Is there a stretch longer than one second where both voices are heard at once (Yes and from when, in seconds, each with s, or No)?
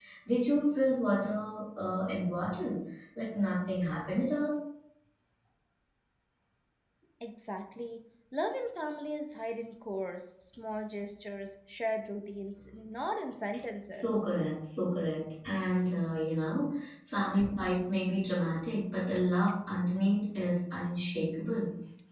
No